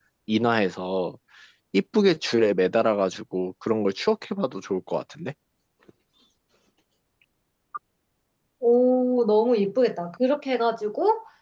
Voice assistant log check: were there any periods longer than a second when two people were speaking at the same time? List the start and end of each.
none

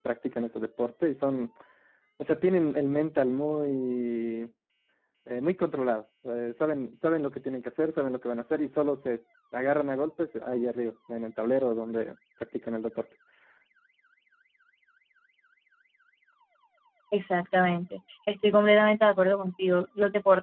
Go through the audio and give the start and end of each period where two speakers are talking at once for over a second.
none

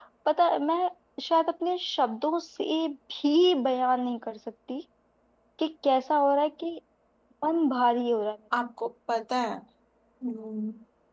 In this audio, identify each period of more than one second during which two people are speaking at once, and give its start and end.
none

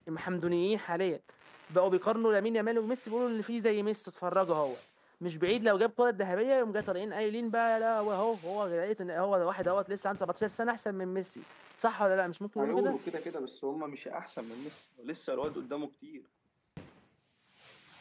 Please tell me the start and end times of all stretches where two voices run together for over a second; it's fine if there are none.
none

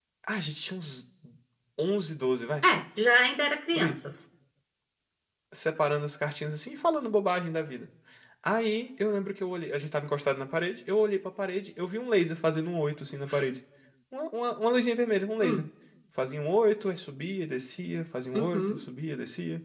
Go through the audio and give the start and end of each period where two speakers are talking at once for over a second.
none

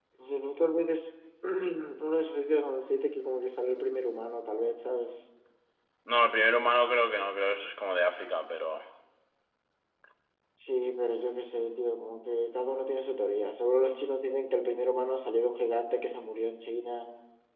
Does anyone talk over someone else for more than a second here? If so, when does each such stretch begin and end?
none

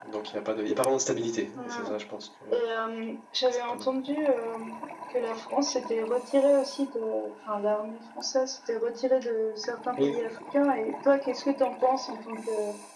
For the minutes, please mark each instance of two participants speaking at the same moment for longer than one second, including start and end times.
none

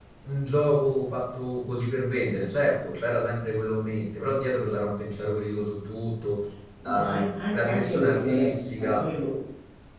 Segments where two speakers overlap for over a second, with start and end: 6.8-9.0

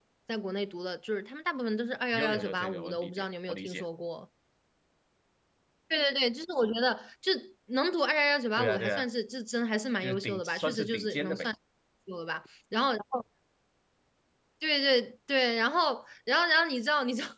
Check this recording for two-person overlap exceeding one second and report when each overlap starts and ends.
2.1-3.8, 10.0-11.5

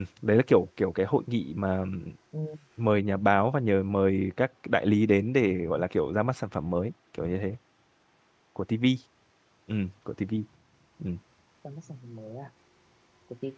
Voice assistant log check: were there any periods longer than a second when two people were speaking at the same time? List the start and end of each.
none

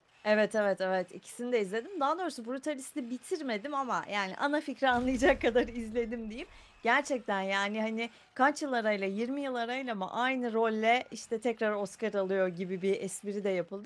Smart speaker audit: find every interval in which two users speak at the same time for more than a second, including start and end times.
none

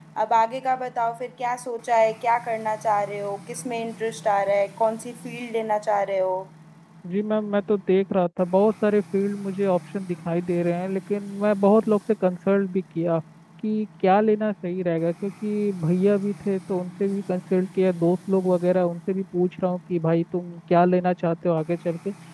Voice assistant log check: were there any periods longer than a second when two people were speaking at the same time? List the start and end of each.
none

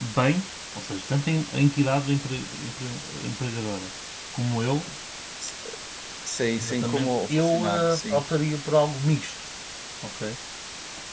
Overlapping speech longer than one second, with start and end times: 6.6-8.2

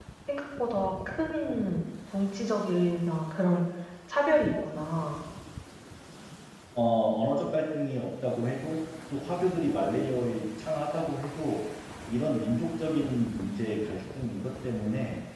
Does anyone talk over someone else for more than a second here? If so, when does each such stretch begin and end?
none

